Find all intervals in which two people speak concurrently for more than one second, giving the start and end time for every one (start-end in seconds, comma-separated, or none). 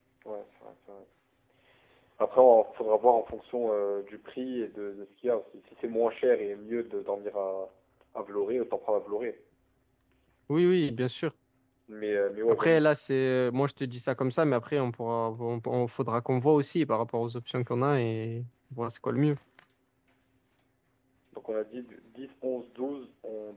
none